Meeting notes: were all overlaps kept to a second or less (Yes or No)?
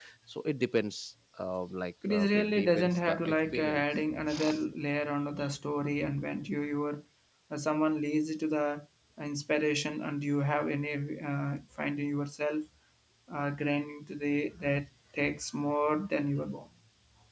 No